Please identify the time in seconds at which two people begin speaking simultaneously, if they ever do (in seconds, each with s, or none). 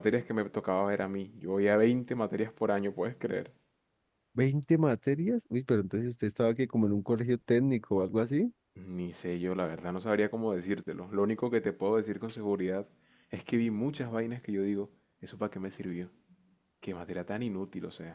none